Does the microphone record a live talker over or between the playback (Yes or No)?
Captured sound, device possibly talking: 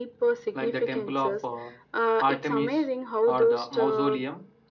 Yes